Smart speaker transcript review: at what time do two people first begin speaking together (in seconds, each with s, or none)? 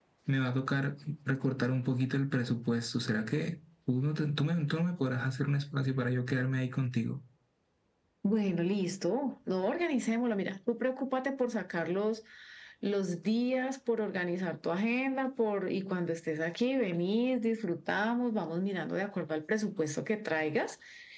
none